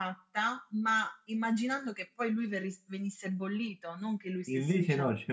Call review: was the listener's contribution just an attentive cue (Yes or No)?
No